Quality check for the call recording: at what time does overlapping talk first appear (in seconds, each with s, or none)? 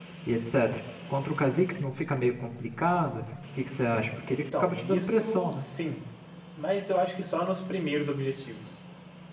4.2 s